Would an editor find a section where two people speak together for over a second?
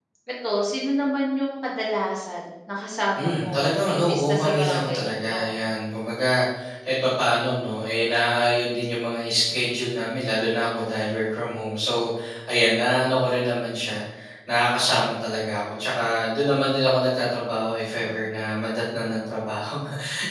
Yes, from 3.1 s

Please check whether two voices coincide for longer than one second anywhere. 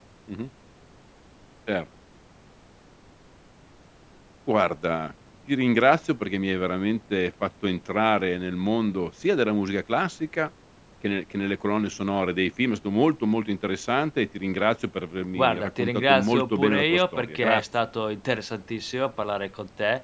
Yes, from 15.3 s

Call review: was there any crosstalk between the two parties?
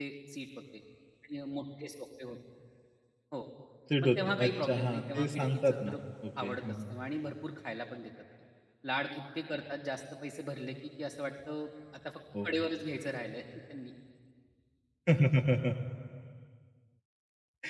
Yes, from 4.0 s

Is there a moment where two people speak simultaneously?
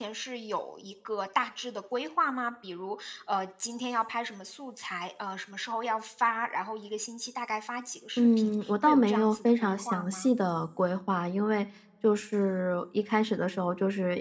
Yes, from 8.2 s

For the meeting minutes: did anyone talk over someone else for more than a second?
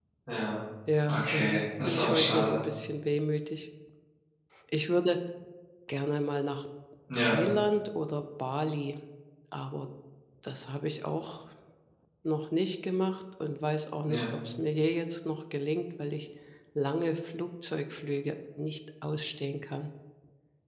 Yes, from 1.1 s

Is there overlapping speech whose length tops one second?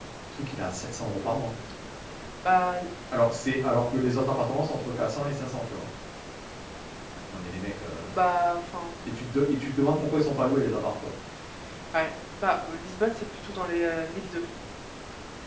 No

